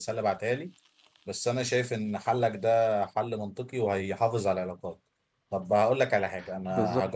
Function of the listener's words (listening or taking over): listening